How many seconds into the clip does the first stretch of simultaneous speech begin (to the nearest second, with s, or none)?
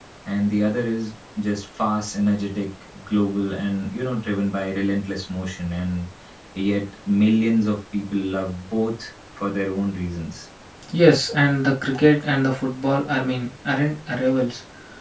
none